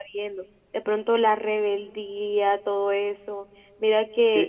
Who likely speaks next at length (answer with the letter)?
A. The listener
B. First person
B